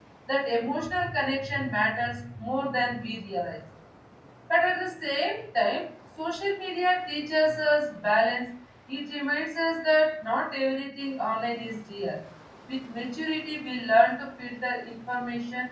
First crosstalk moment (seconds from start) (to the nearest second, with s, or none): none